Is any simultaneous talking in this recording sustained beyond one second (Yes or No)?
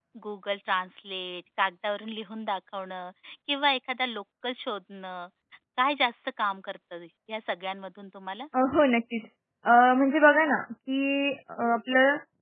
No